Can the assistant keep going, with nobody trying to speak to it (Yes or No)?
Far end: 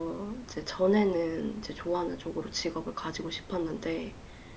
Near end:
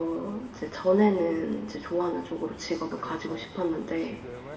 No